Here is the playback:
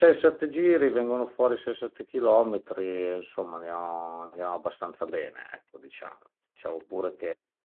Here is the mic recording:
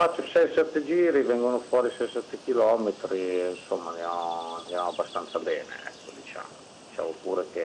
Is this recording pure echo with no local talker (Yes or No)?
Yes